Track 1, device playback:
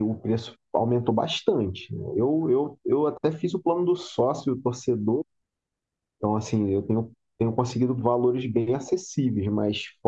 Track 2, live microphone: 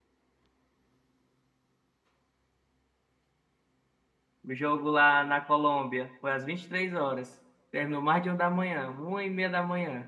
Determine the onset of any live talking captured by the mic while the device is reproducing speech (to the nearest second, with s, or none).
4 s